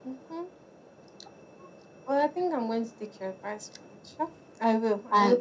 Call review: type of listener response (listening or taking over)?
taking over